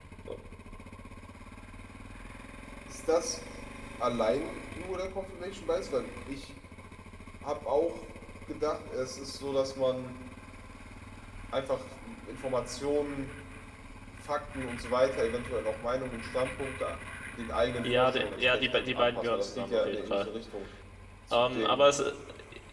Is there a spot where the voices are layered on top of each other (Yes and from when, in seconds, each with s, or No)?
Yes, from 17.8 s